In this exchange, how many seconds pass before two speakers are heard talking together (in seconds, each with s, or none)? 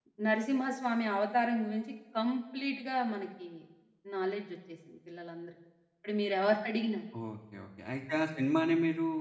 none